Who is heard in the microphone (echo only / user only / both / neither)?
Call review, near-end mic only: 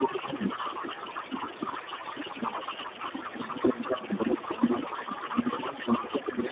echo only